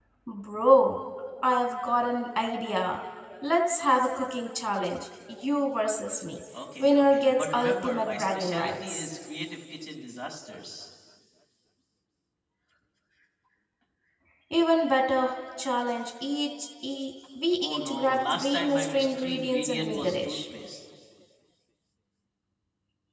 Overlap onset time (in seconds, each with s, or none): 6.8 s